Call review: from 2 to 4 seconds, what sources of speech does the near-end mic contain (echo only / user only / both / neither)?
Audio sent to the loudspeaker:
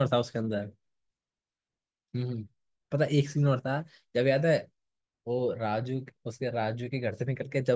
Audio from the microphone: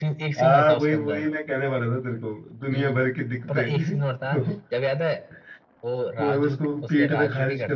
both